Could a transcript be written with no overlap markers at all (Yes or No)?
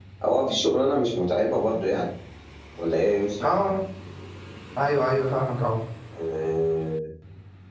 Yes